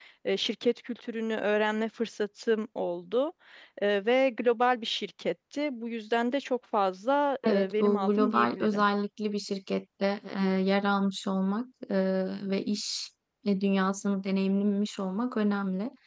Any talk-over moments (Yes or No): Yes